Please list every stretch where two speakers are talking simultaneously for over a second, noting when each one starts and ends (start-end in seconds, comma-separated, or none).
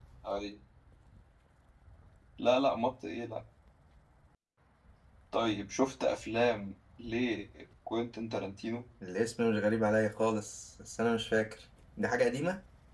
none